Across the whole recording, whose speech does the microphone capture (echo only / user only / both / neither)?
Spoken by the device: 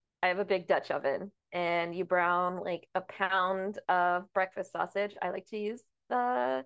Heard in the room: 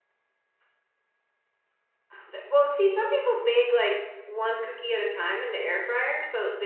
user only